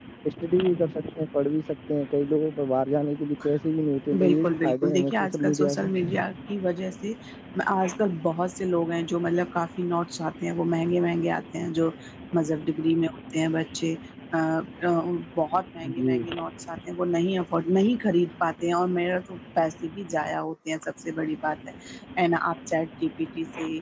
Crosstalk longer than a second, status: present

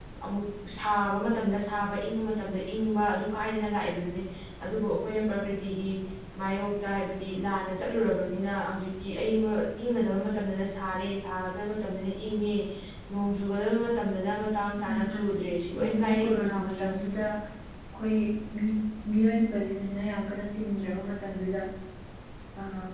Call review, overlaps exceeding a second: present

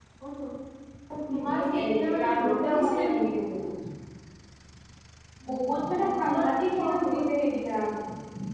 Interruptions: present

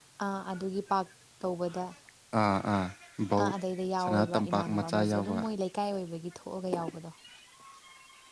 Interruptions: present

